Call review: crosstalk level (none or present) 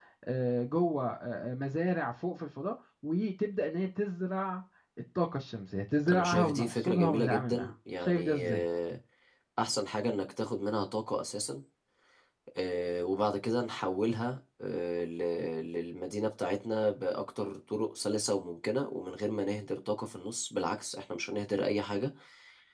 present